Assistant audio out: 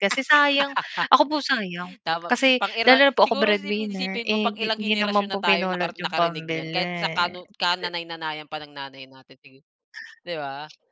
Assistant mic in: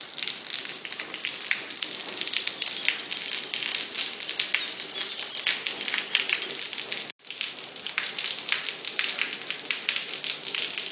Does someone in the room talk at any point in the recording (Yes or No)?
No